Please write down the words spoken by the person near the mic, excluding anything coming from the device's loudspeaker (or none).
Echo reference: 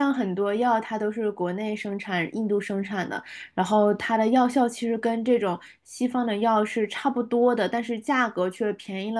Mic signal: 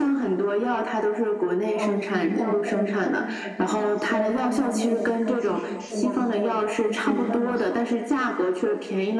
呃，可能药会更便宜一些，然后相对的它其实质量就也不一定那么好。